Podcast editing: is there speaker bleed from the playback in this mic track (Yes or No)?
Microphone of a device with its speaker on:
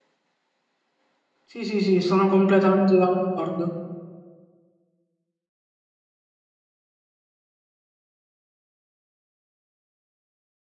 No